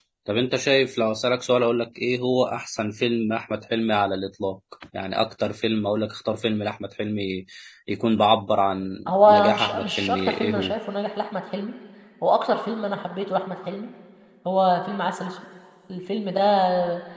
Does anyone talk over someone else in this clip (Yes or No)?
Yes